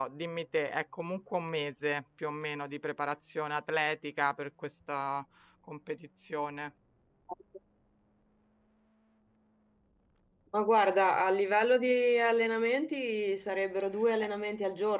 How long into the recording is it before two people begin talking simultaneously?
none

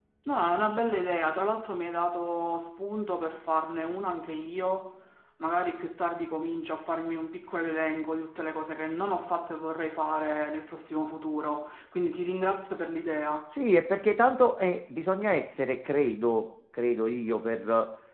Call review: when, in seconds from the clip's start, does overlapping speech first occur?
none

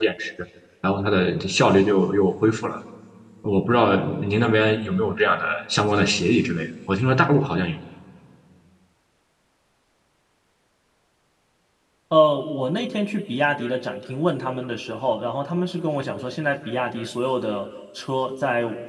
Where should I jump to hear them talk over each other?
none

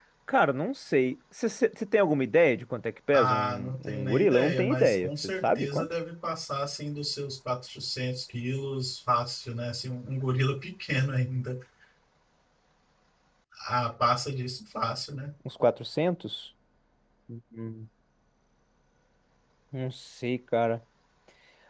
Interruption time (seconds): 3.1 s

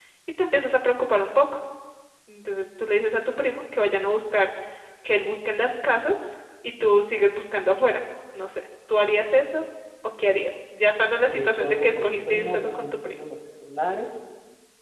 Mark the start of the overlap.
11.3 s

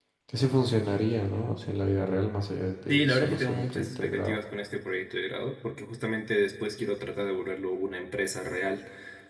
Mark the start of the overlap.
2.9 s

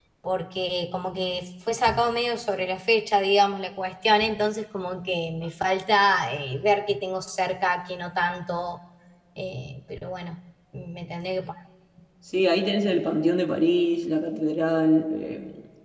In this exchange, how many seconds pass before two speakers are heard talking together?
none

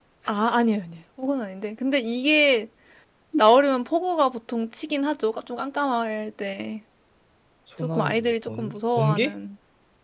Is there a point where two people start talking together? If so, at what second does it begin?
7.8 s

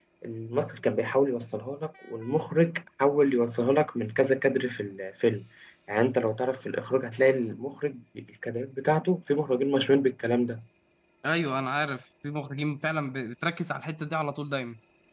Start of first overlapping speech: none

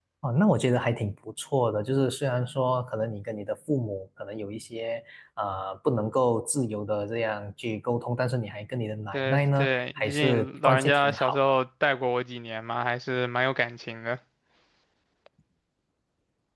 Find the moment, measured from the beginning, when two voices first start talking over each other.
9.1 s

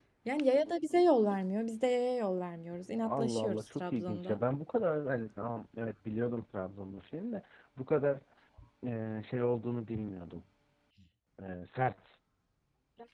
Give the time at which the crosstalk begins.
3.0 s

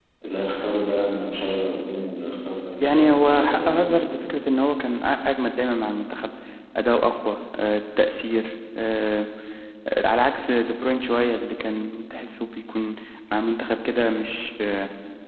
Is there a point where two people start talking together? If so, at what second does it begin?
2.8 s

